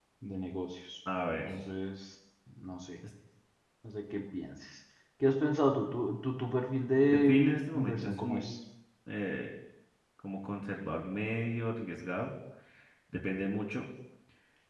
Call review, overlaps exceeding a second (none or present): present